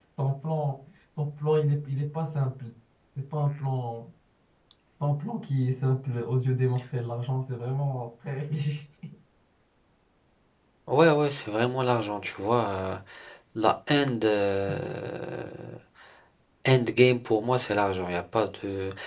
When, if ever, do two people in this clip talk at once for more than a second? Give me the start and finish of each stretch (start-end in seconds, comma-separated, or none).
none